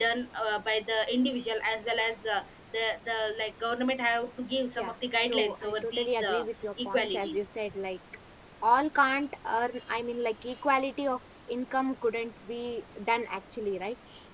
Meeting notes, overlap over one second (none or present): present